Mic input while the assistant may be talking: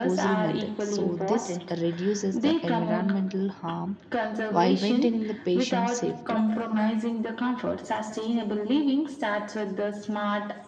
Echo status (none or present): present